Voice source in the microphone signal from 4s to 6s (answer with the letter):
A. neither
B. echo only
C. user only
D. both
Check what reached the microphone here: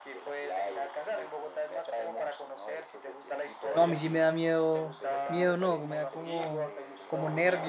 D